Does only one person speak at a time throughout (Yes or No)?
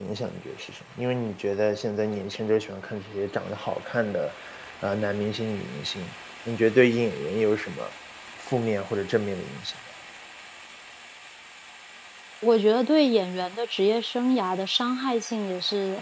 Yes